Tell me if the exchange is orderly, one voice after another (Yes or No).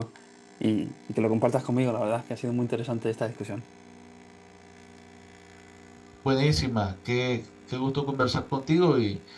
Yes